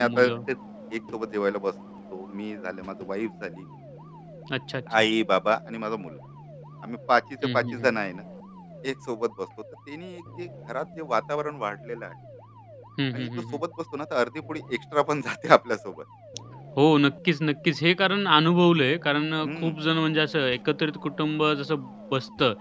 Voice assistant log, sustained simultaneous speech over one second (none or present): none